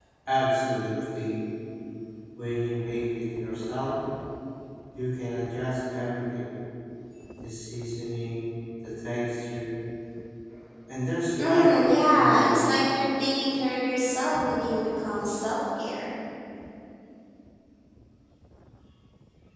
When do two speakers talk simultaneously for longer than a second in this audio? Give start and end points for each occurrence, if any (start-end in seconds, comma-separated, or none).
11.4-12.6